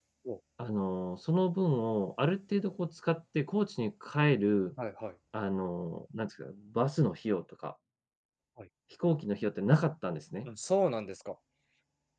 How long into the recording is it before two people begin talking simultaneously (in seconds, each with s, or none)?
none